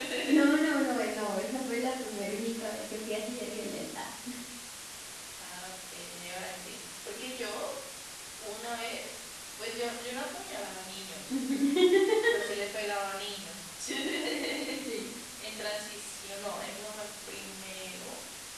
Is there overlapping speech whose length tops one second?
No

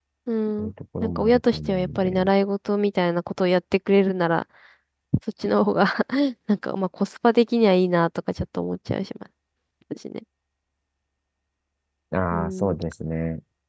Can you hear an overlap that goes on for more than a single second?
Yes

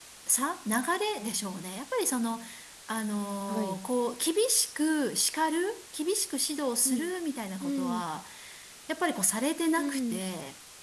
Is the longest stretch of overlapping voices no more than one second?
Yes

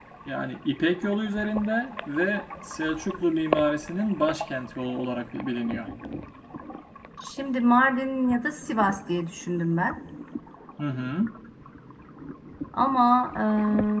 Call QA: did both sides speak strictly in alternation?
Yes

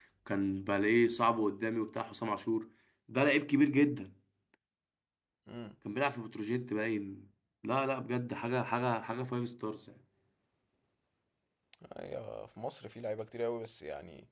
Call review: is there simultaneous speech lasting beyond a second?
No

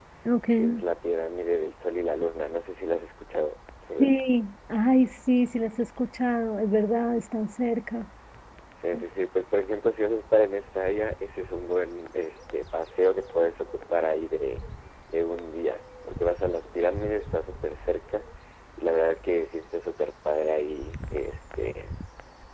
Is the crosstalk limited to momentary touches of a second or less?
Yes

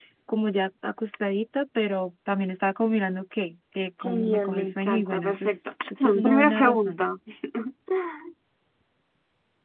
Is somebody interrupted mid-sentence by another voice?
Yes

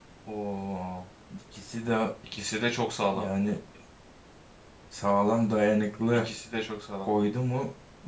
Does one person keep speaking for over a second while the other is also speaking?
No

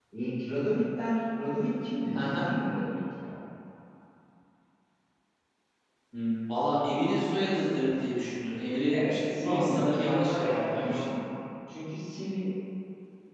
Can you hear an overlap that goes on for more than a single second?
Yes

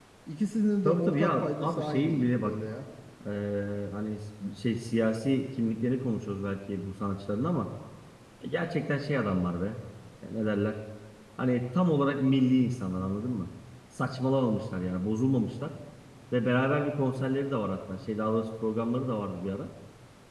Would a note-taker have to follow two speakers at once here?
Yes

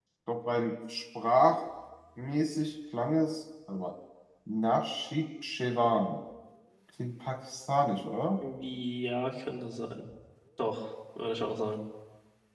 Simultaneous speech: No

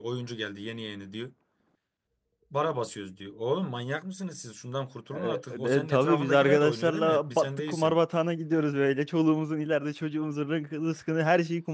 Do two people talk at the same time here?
Yes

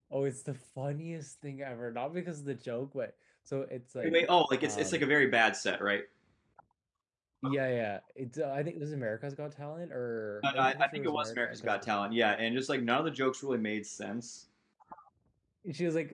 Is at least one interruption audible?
Yes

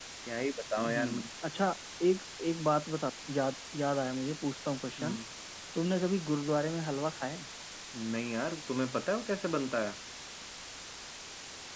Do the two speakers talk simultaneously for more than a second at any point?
No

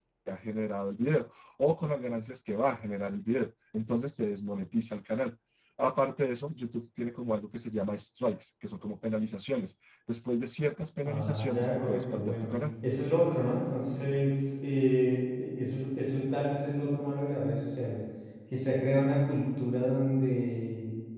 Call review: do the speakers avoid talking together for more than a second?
No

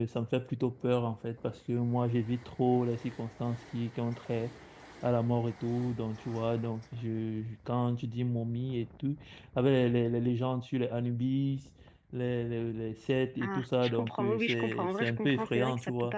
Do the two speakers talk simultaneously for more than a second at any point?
Yes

